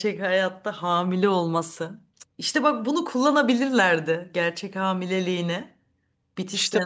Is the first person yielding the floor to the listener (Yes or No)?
Yes